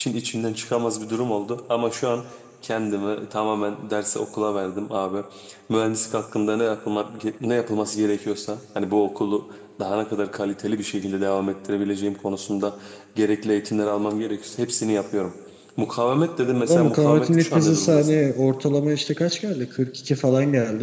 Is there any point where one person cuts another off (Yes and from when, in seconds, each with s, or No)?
Yes, from 16.4 s